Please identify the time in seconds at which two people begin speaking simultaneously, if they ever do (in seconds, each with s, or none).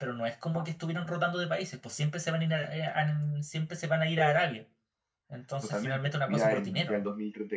5.6 s